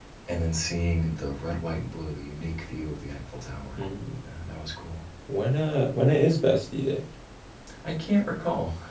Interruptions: none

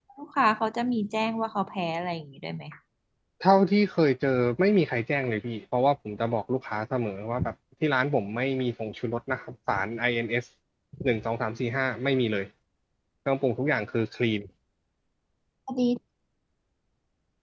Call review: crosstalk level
none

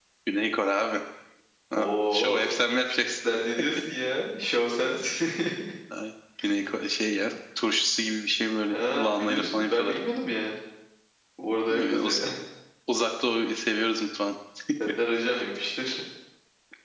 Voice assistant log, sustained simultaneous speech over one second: present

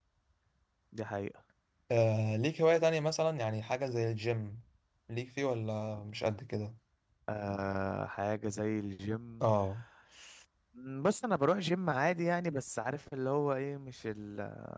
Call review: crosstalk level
none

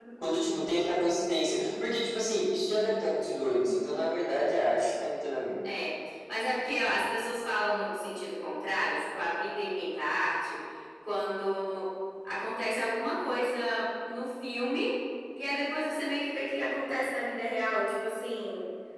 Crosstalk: none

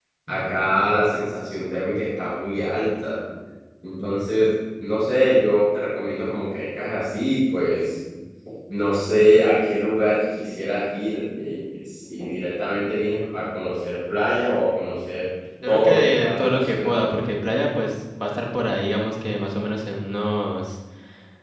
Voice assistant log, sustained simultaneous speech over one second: present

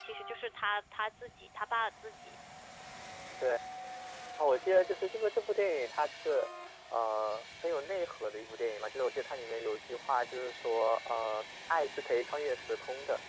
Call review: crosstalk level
none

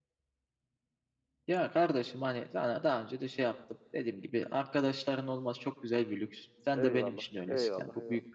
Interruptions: present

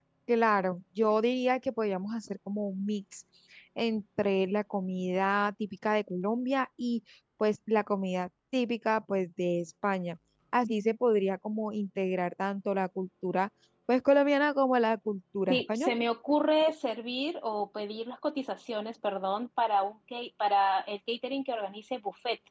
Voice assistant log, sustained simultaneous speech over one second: none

